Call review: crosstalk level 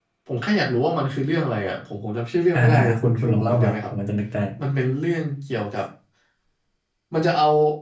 present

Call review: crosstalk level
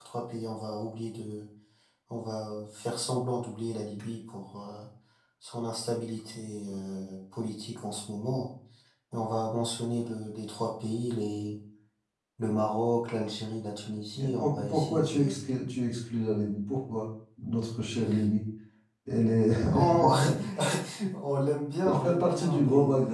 present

